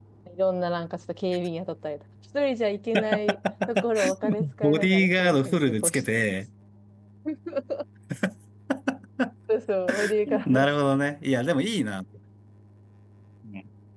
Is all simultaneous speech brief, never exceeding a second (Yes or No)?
No